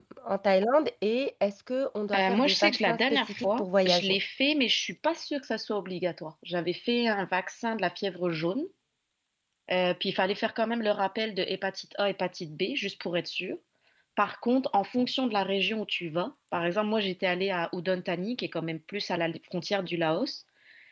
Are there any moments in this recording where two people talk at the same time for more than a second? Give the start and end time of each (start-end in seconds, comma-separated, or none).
2.1-4.2